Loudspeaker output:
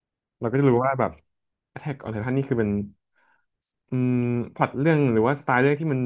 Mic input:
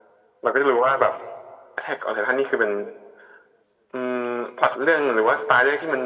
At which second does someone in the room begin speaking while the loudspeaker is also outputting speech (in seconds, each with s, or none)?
none